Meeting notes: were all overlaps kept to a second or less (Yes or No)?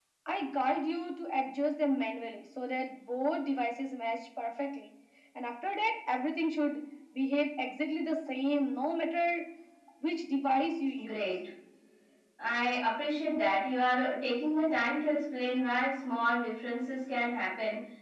Yes